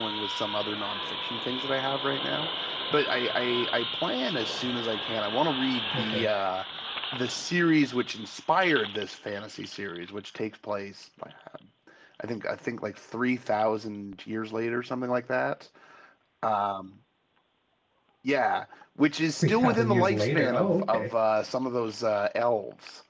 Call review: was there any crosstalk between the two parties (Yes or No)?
Yes